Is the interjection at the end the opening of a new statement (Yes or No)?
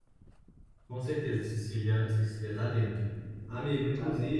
No